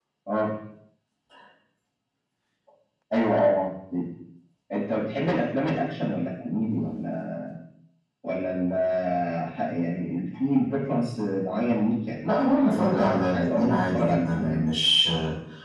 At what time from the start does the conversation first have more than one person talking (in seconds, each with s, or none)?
12.2 s